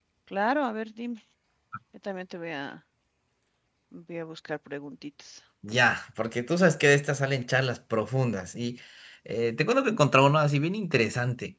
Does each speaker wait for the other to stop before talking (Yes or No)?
Yes